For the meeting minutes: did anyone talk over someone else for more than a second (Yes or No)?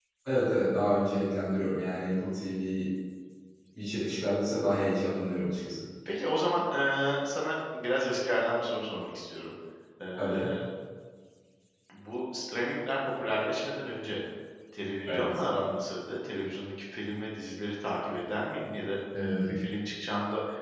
No